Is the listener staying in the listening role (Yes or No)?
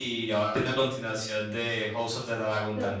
No